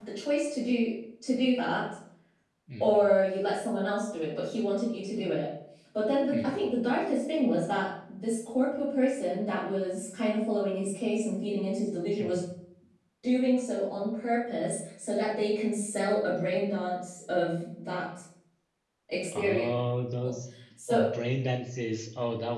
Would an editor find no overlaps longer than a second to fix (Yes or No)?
Yes